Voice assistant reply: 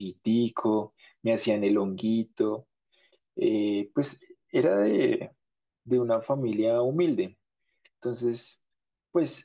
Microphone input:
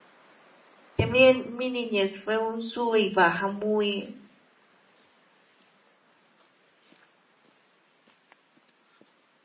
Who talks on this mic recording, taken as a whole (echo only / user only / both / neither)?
user only